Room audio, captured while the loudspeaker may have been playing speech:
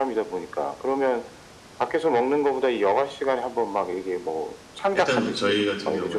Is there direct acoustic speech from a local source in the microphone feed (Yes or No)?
Yes